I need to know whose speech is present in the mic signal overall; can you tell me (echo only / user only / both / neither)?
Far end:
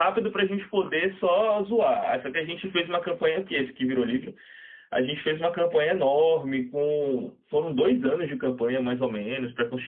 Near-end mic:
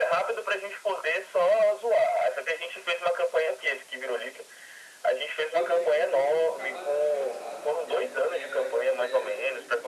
both